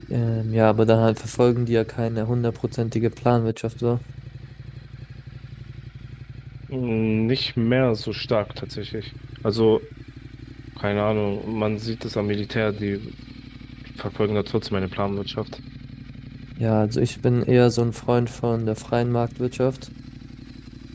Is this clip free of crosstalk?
Yes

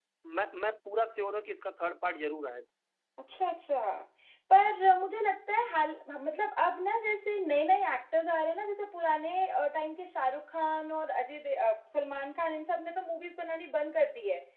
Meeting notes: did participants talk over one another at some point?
No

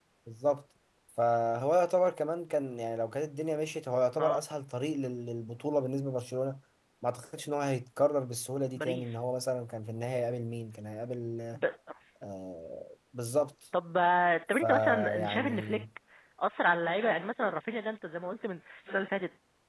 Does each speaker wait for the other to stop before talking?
No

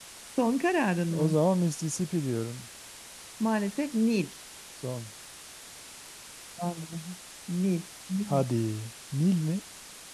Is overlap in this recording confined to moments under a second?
Yes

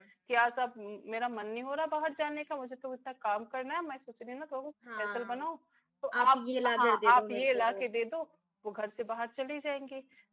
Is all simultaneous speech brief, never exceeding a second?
No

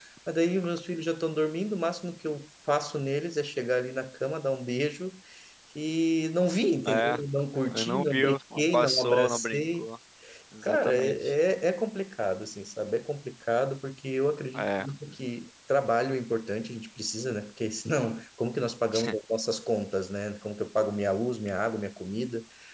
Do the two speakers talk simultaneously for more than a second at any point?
Yes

